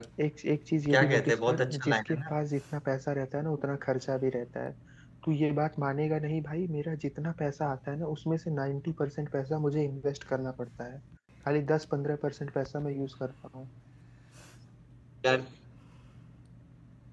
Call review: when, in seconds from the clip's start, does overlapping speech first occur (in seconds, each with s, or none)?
0.9 s